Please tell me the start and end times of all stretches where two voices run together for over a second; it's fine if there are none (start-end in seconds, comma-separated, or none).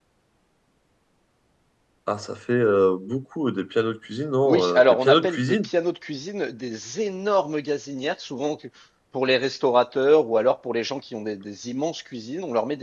4.5-5.7